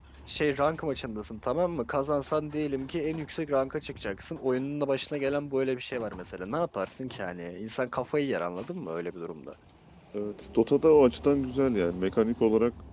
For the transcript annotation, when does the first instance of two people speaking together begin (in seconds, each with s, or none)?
none